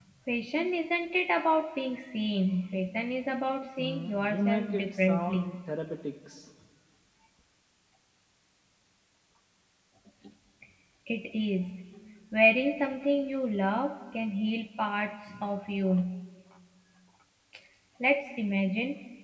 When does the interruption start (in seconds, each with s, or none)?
3.8 s